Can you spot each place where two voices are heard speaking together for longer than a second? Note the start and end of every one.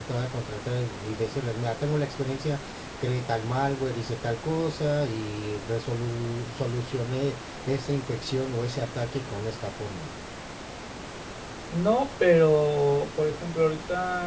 none

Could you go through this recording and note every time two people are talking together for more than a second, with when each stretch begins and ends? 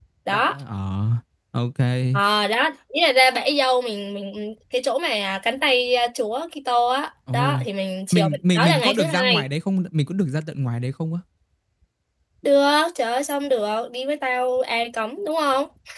8.1-9.5

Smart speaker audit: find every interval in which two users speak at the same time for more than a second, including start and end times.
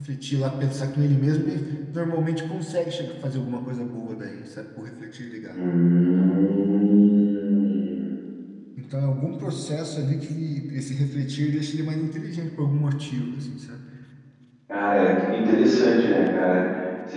none

